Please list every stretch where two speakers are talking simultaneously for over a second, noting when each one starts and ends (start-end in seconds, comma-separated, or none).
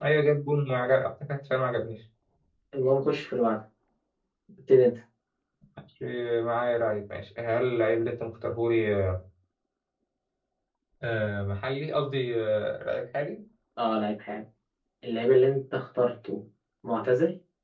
none